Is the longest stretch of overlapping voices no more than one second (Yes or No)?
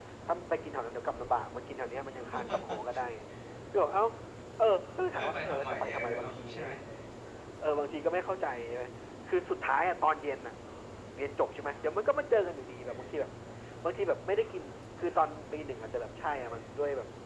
No